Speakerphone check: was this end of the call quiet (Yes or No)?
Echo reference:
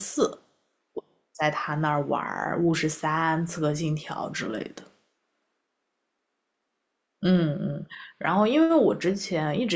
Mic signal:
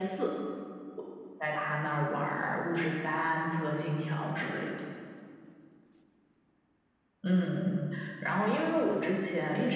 Yes